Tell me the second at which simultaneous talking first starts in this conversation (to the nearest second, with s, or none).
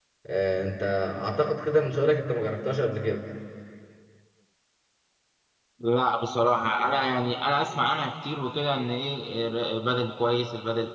none